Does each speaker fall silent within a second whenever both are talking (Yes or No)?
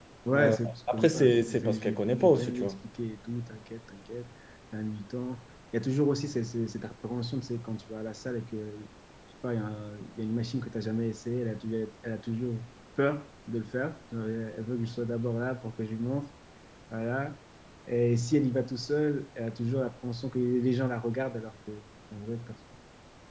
No